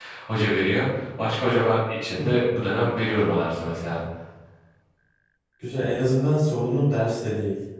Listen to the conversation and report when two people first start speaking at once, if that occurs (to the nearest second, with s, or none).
none